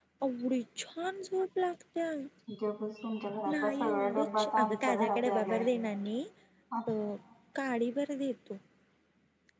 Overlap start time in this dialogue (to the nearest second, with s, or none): 3 s